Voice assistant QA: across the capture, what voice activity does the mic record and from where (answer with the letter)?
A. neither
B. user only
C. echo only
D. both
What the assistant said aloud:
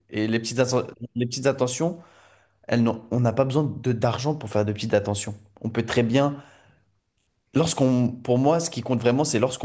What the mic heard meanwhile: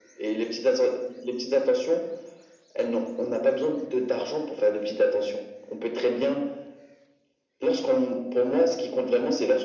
C